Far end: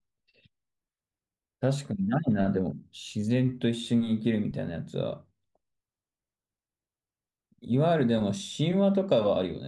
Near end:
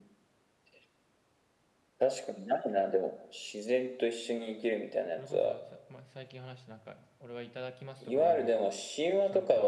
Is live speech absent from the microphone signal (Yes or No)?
No